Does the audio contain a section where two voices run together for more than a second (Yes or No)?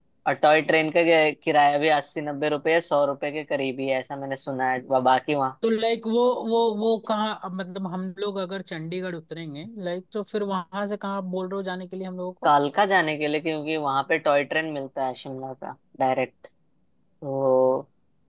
No